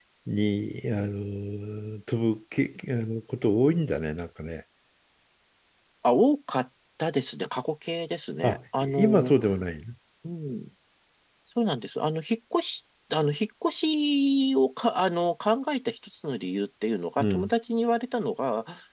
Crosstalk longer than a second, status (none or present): none